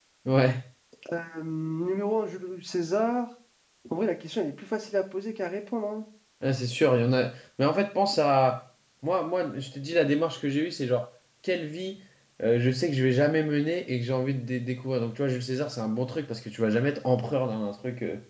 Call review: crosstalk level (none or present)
none